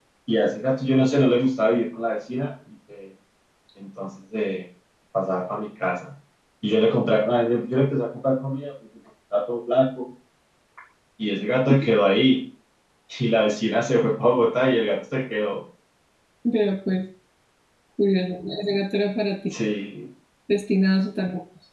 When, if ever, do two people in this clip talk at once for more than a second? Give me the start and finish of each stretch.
none

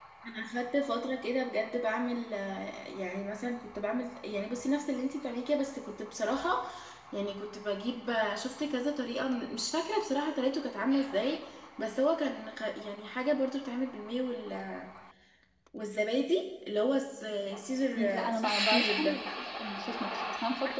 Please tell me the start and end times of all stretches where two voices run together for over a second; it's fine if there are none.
18.0-19.2

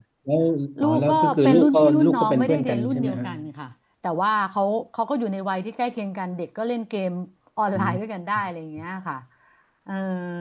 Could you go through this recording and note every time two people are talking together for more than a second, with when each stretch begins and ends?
0.8-3.3

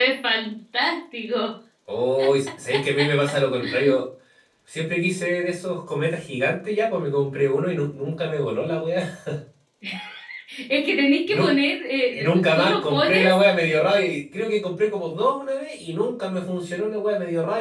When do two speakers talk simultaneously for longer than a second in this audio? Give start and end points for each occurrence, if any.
12.1-13.4

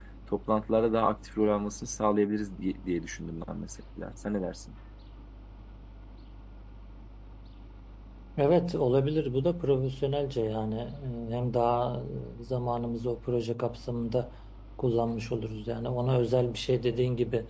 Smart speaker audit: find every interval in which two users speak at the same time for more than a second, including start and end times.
none

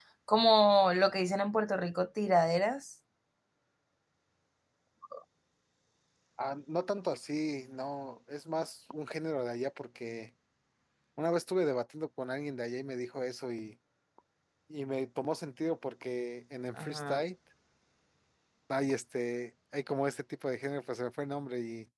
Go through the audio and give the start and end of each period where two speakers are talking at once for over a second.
none

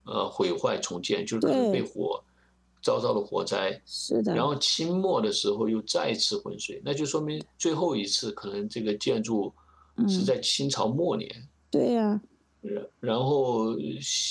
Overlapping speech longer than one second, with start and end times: none

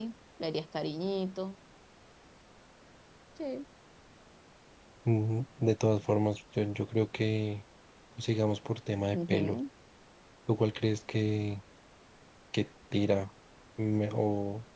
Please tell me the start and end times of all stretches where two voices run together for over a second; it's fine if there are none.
none

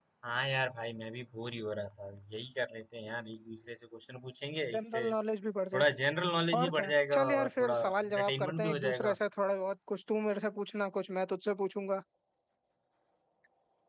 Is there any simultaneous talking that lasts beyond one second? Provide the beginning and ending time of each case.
6.6-9.1

